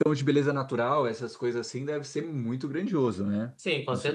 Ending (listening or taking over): taking over